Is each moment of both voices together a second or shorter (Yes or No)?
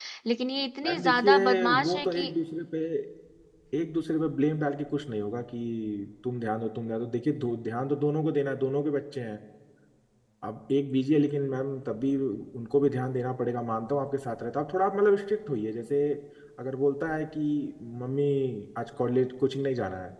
No